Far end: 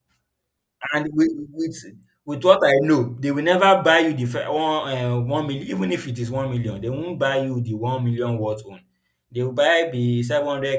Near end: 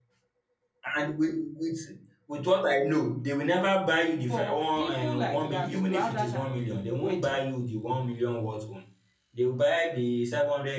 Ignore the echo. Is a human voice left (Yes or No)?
Yes